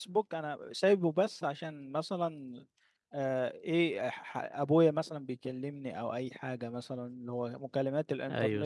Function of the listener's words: listening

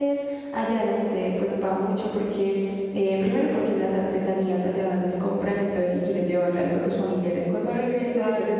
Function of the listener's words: taking over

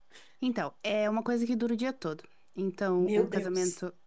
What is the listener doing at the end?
listening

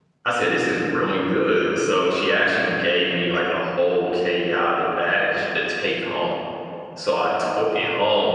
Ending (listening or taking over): listening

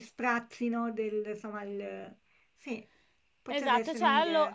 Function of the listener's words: taking over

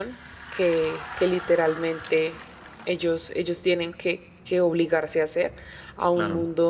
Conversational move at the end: listening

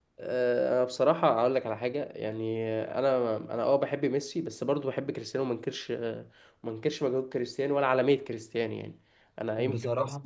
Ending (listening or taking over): listening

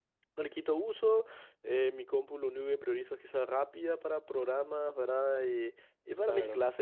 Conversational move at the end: listening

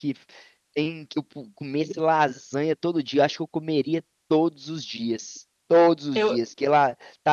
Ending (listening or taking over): listening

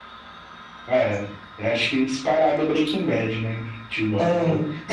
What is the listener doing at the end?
listening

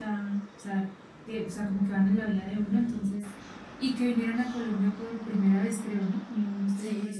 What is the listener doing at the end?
taking over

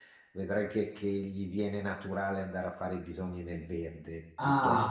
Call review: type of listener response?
taking over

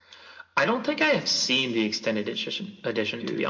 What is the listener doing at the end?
listening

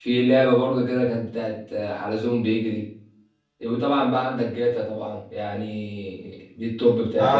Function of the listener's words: taking over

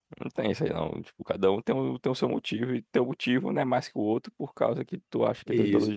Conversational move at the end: taking over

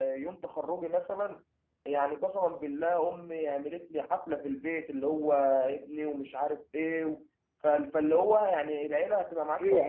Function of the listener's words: taking over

